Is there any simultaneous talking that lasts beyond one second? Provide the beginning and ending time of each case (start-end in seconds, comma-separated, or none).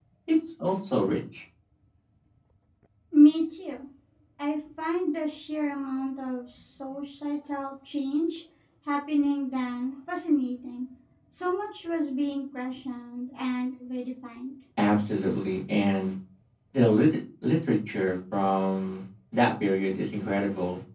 none